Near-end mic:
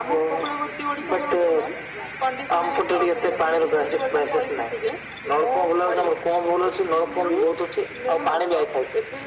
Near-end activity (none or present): none